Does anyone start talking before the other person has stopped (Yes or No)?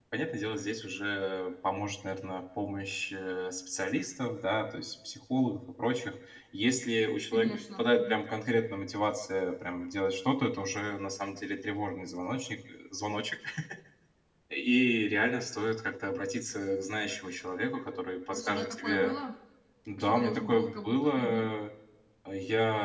Yes